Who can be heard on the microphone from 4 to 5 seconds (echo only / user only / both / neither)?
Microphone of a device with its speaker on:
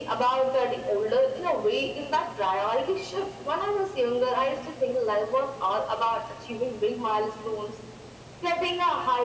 echo only